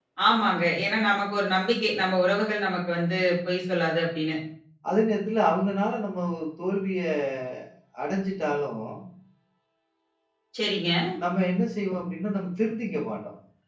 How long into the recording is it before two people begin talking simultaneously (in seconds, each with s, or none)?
none